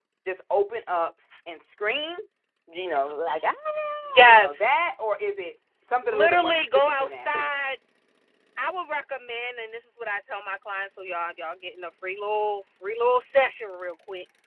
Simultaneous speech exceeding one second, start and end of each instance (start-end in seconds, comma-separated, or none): 6.0-7.3